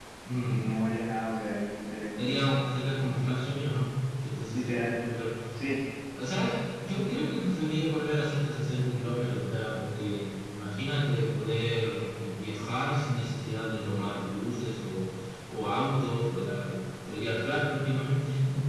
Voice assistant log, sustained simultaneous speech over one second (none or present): none